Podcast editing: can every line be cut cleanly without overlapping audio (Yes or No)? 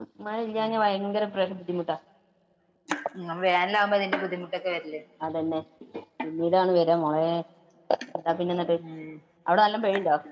Yes